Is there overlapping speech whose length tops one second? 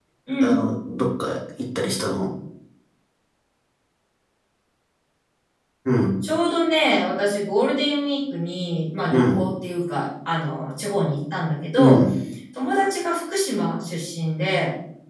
No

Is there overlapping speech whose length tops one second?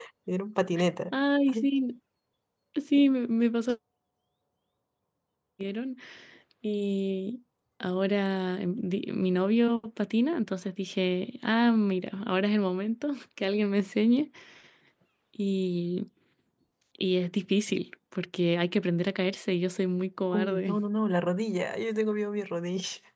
No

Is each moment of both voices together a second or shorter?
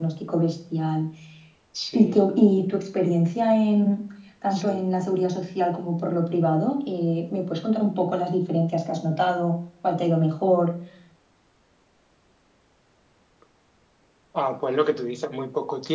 Yes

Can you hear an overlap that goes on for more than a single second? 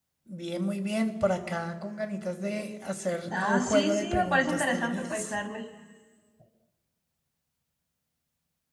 Yes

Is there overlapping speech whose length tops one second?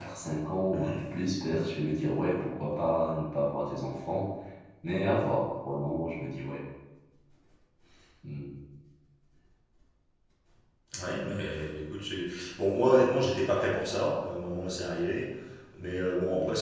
No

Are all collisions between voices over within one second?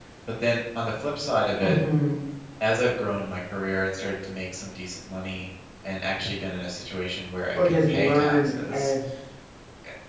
No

